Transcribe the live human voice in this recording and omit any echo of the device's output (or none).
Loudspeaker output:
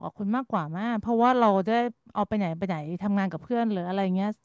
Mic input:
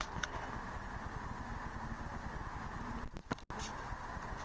none